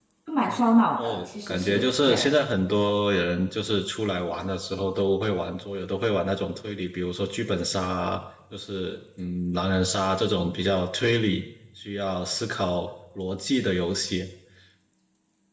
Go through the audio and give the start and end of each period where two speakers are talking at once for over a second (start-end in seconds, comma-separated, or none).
1.0-2.3